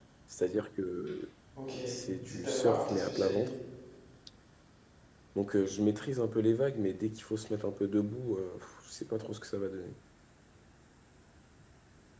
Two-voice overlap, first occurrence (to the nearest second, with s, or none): 2 s